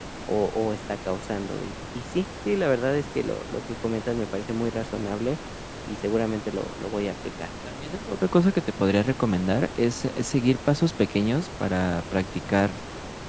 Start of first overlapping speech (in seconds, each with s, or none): none